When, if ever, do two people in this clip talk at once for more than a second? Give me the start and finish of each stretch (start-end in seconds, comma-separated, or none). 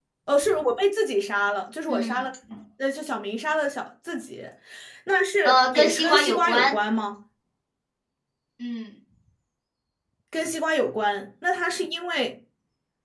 5.5-6.7